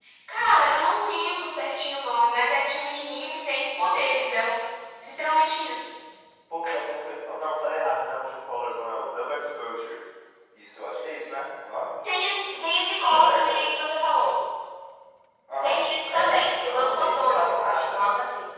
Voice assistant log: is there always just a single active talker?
No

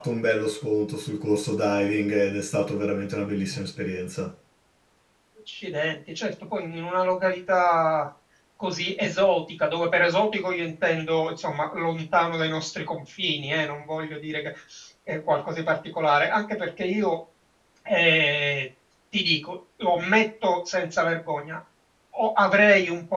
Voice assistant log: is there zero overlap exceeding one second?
Yes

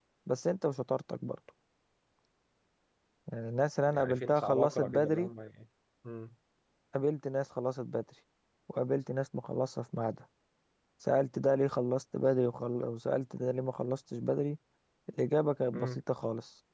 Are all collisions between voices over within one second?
No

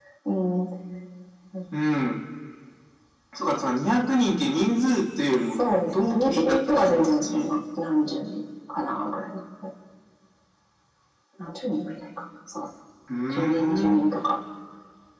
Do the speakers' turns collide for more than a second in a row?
Yes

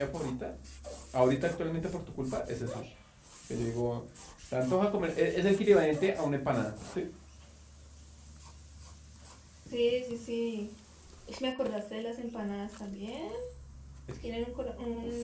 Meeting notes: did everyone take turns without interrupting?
Yes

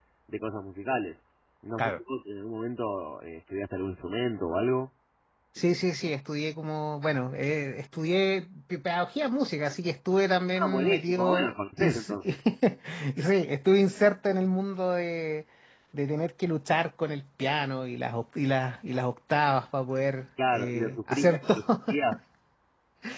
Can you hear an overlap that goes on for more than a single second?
Yes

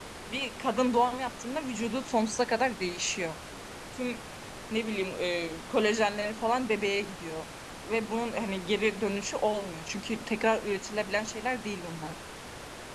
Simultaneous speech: No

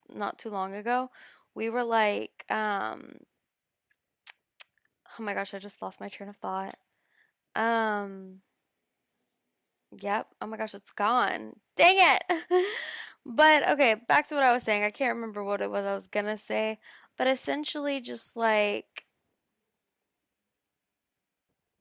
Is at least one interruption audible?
No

